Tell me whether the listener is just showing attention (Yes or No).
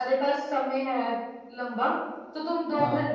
Yes